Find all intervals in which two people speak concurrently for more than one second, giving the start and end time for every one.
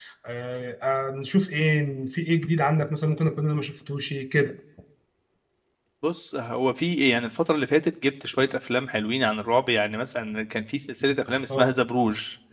none

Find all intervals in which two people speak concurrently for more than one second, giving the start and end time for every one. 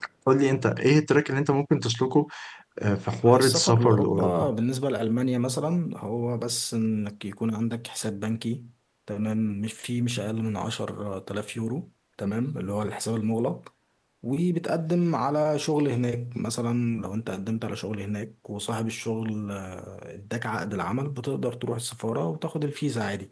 3.2-4.5

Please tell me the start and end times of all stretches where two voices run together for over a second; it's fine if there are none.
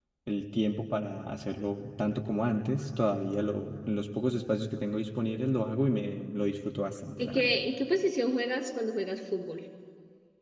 none

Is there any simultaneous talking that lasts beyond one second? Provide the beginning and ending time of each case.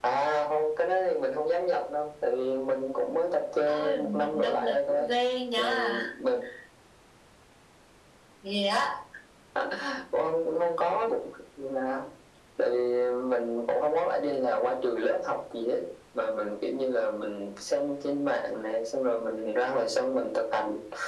3.7-5.1

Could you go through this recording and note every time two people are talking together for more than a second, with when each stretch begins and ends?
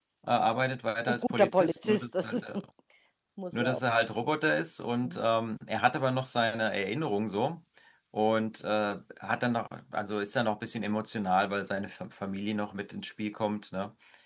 1.1-2.4

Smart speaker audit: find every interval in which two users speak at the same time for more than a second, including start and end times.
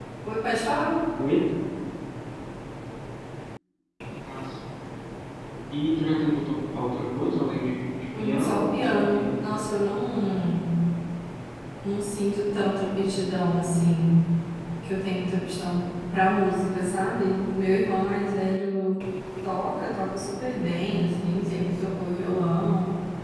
8.2-9.6

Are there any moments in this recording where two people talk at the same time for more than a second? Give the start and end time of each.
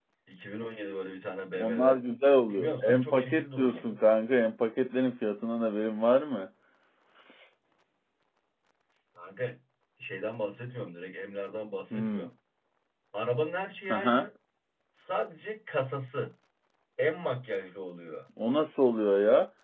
2.5-3.9

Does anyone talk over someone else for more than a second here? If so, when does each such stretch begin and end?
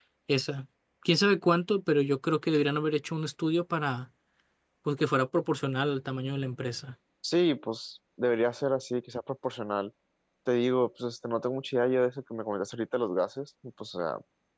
none

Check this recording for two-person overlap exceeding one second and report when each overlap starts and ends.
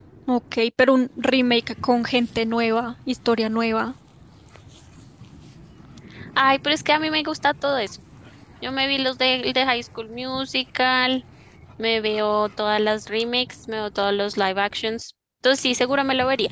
none

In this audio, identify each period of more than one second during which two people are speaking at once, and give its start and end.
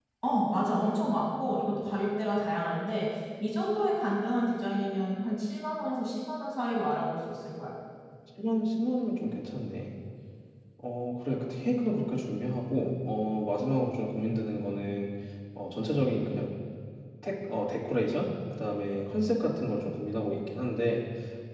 none

